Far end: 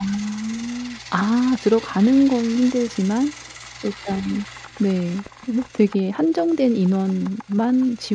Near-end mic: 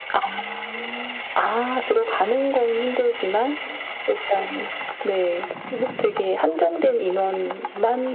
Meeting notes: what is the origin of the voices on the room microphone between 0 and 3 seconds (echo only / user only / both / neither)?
echo only